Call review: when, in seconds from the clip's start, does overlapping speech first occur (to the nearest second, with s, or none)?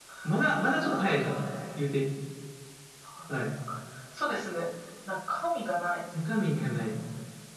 none